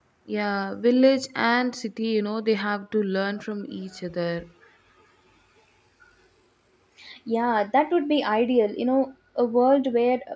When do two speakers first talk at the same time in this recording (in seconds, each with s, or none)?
none